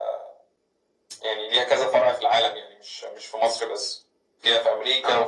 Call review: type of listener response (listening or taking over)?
listening